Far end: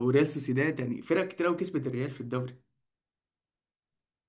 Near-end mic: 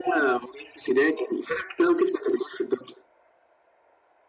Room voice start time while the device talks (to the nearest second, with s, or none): none